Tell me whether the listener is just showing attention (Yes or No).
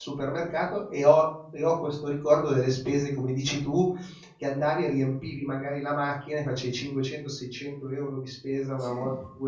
Yes